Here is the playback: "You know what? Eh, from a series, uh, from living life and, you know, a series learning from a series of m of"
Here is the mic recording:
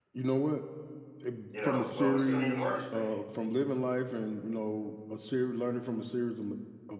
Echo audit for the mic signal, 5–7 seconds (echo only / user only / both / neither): echo only